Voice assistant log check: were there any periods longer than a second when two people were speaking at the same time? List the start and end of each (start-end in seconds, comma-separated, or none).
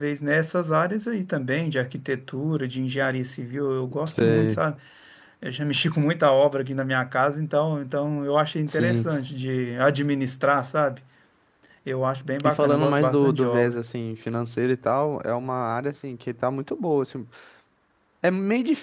12.4-13.8